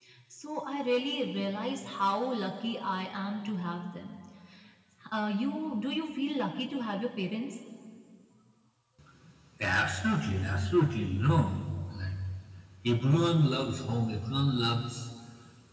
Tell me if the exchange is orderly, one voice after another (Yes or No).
Yes